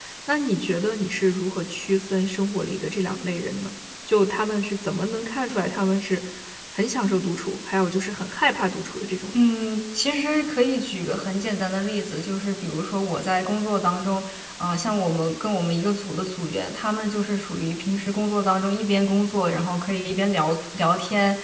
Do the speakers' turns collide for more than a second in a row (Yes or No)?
No